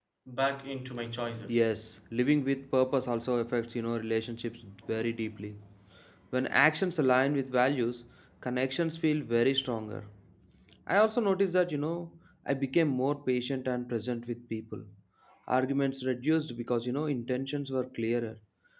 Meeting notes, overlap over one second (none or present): none